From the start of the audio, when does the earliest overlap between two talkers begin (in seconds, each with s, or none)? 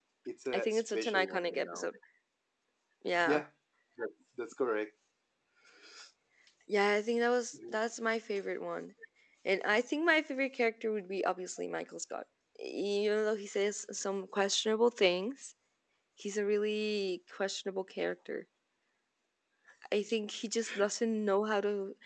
0.5 s